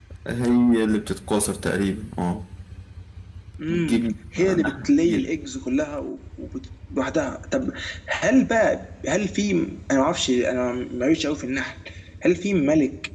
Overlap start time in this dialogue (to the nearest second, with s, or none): 4 s